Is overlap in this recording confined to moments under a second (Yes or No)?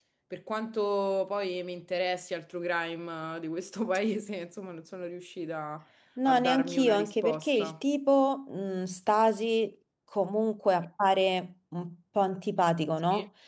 No